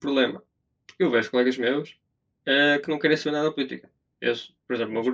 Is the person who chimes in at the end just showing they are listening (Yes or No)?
Yes